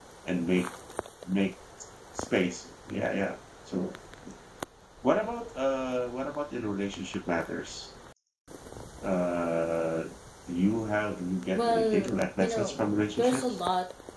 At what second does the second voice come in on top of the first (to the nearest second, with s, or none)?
12 s